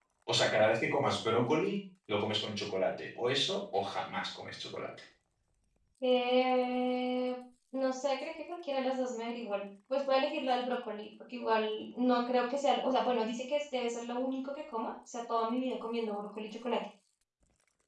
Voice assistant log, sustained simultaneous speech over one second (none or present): none